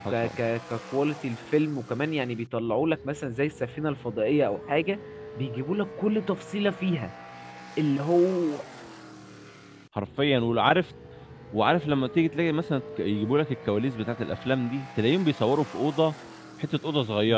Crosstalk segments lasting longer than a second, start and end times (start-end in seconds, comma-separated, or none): none